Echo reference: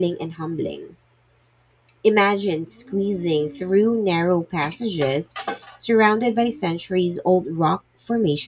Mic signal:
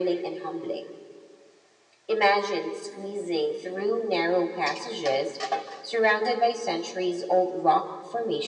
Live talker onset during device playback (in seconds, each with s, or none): none